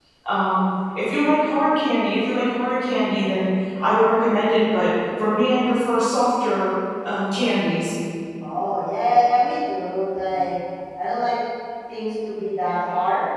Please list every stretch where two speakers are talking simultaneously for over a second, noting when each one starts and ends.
none

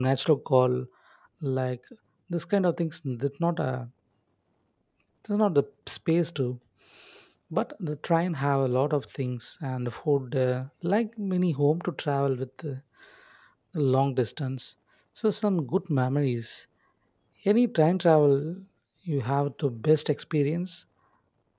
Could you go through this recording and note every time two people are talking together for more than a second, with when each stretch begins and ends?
none

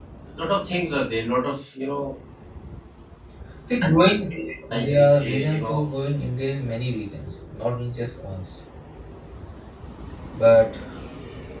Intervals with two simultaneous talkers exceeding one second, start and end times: 4.7-5.9

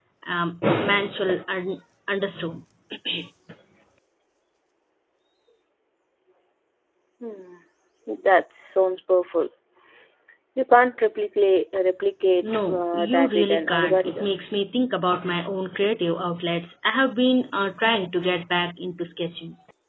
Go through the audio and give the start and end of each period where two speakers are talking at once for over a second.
12.4-14.4

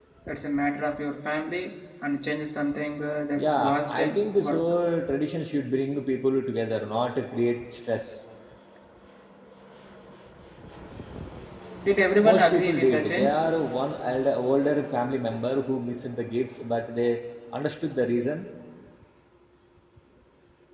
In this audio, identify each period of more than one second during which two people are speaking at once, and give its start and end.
3.4-4.6, 12.2-13.4

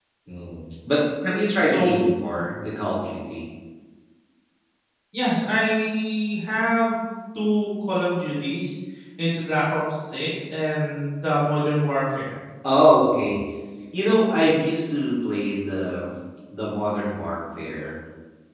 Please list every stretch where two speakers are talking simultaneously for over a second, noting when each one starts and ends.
none

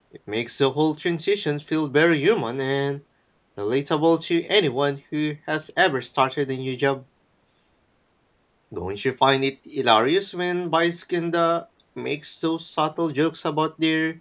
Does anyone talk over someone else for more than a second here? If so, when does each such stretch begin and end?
none

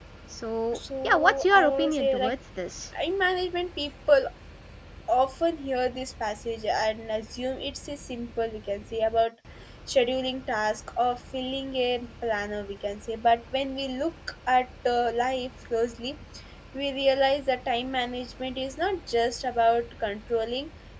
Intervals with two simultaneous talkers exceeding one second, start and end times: 0.7-2.3

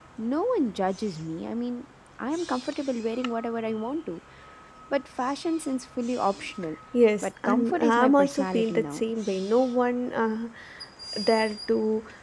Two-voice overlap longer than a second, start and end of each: 7.2-9.0

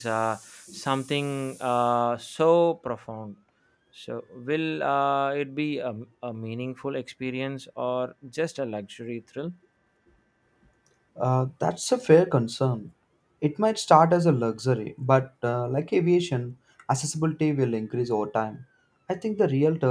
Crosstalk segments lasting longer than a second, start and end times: none

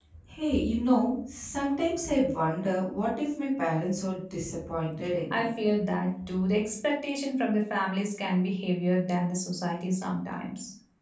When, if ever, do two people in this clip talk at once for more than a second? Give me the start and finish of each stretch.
none

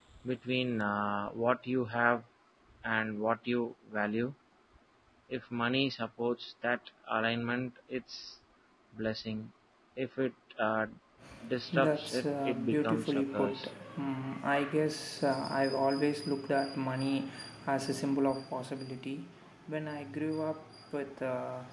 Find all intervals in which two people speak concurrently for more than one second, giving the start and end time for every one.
11.7-13.7

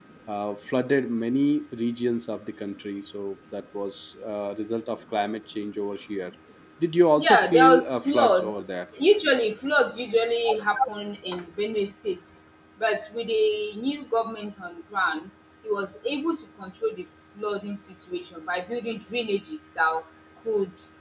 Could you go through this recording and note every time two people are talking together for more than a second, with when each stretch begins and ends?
7.2-8.5

